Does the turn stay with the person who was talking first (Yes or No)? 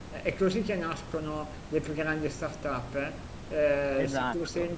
Yes